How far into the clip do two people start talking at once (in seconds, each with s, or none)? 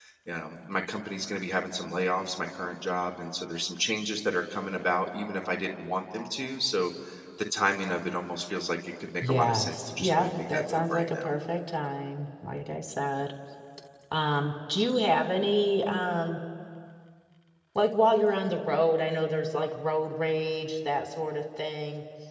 9.2 s